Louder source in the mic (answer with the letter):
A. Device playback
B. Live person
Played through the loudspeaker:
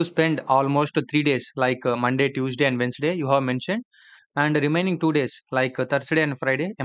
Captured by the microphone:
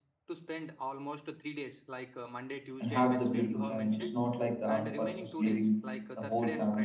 B